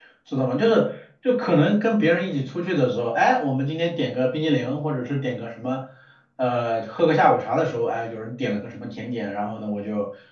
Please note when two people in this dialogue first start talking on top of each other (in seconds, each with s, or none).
none